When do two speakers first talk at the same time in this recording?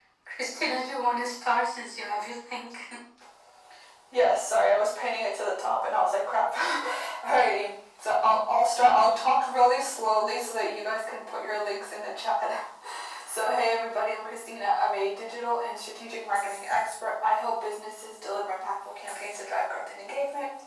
none

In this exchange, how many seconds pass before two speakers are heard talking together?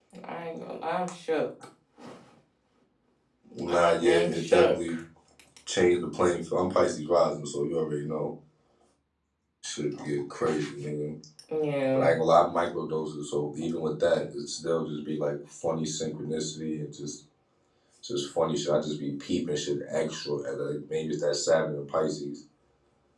3.7 s

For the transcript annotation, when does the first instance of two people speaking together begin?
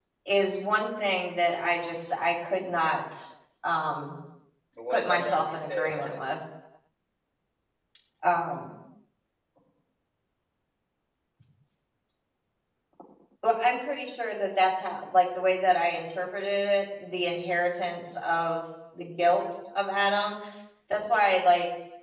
4.9 s

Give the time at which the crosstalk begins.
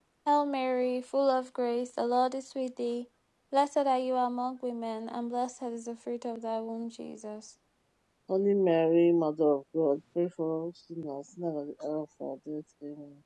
none

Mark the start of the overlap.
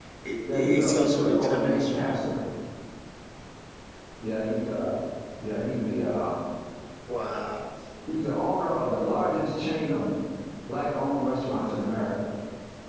0.5 s

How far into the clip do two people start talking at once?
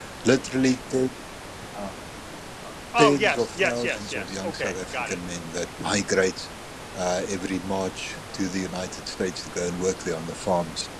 3.0 s

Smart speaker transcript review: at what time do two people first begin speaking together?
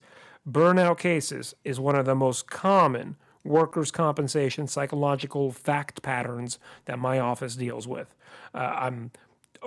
none

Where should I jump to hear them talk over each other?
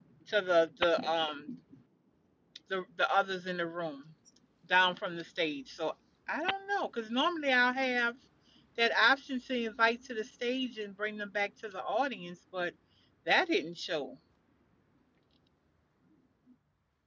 none

